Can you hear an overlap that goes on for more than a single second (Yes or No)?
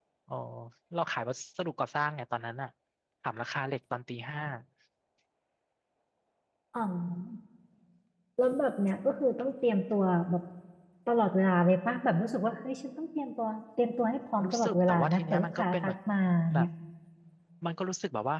Yes